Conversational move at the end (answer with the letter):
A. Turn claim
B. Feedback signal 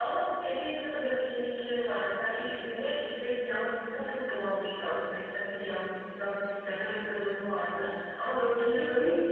B